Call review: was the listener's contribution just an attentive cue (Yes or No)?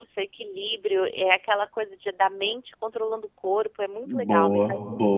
No